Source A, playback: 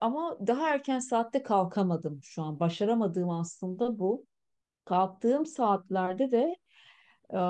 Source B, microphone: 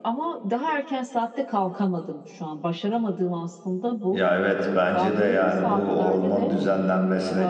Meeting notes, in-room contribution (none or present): present